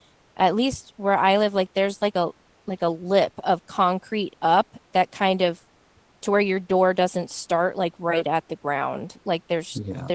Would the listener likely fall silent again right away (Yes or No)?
Yes